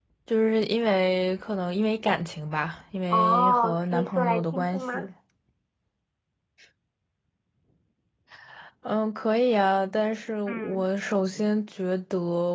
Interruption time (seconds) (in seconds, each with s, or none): 3.1 s